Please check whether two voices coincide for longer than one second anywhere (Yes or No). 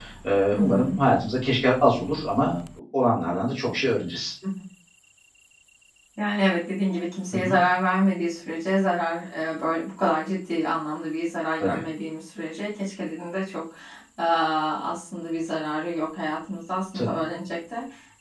No